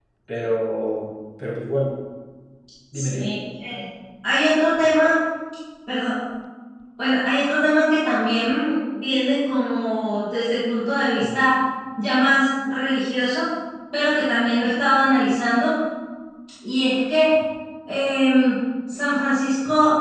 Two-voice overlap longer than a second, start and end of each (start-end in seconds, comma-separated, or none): none